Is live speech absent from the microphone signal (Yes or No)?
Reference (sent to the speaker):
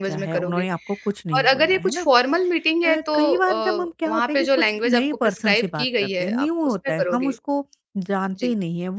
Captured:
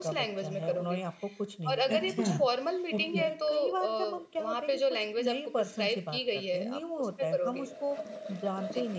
No